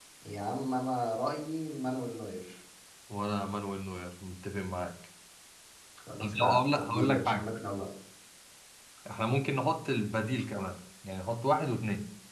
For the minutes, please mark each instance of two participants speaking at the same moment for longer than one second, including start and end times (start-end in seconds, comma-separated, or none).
6.2-7.5